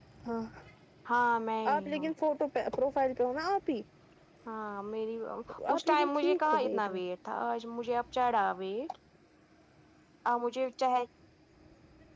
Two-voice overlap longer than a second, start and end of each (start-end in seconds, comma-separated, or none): 5.7-7.0